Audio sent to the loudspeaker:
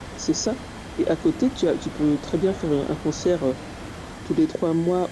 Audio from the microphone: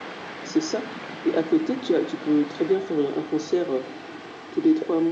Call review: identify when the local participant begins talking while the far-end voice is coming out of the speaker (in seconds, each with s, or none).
none